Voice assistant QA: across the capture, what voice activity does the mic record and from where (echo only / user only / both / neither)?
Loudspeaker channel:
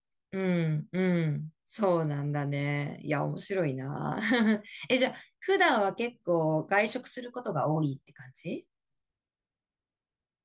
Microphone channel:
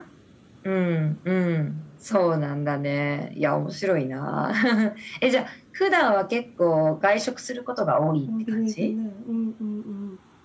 both